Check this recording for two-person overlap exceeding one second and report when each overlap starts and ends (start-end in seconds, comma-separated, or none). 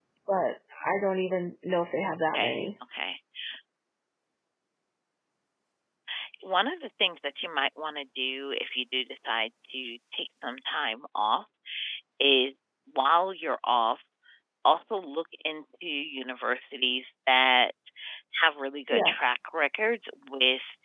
none